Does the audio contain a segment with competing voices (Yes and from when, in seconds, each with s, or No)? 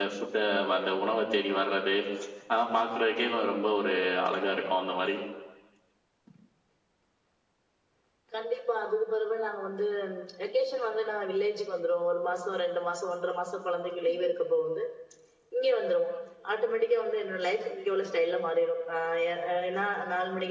No